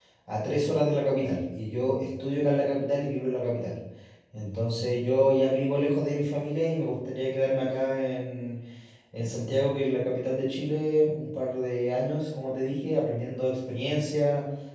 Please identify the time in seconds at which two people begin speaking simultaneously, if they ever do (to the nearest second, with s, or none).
none